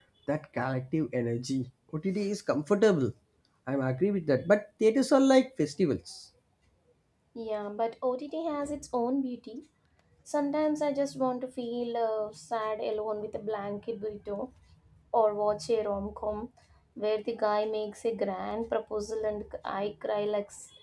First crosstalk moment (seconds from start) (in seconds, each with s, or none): none